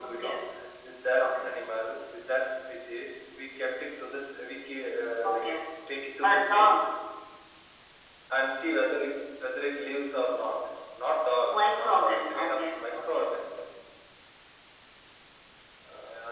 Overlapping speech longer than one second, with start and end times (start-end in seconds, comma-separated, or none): 11.5-13.3